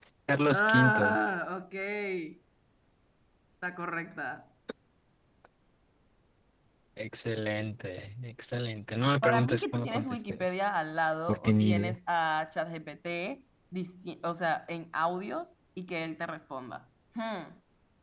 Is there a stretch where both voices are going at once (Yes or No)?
Yes